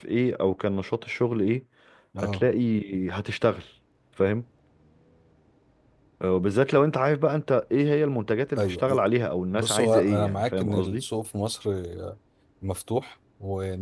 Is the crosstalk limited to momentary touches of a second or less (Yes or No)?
No